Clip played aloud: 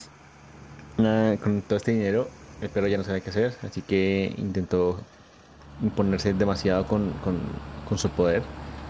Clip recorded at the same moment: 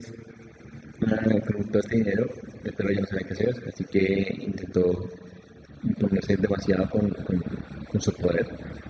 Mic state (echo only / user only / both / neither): echo only